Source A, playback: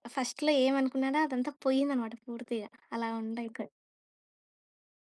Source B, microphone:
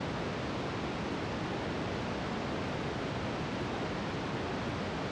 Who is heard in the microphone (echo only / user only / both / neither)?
neither